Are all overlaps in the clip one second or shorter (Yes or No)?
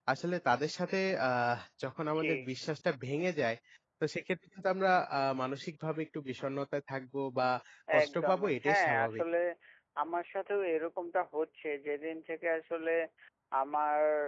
No